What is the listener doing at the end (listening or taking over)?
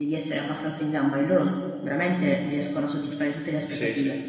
taking over